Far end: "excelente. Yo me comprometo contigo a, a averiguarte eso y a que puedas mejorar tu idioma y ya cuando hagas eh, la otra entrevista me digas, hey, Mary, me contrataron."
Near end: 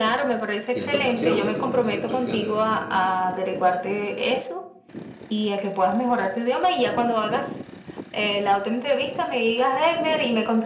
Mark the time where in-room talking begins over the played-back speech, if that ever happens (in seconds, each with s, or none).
0.7 s